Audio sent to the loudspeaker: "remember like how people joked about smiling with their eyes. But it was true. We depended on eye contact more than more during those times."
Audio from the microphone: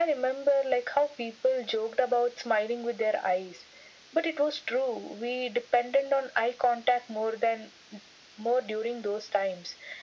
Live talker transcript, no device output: none

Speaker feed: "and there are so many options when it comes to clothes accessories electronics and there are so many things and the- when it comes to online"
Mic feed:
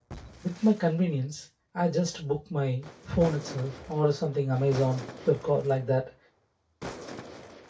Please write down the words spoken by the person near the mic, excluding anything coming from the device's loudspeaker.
with my convenience i just book my phone itself or something amazon flipkart like that

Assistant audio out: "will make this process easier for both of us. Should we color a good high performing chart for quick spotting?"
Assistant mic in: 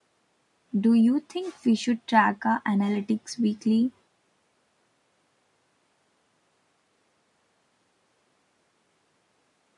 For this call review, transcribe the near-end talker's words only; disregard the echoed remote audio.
Do you think we should track our analytics weekly?

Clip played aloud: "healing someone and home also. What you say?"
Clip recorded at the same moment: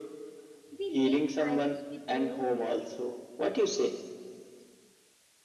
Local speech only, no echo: We link silence with loneliness,

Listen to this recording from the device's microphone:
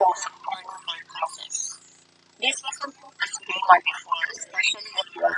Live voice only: none

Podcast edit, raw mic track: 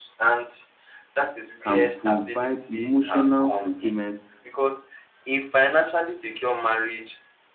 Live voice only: can provide emotional fulfillment

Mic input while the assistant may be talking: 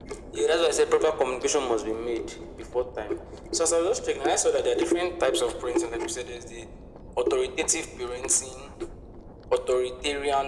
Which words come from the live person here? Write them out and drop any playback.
none

